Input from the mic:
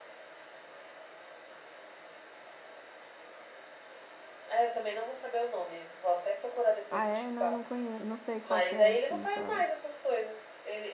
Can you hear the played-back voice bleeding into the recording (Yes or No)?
Yes